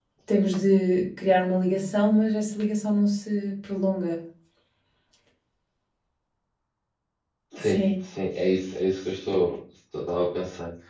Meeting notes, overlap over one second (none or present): none